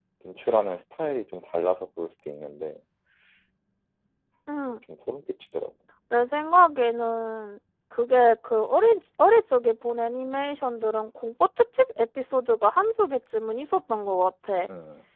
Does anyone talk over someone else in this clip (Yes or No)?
No